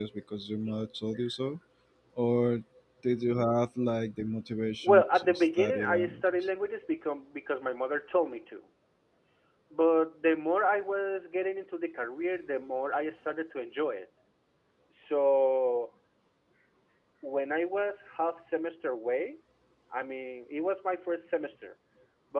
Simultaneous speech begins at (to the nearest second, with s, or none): 5 s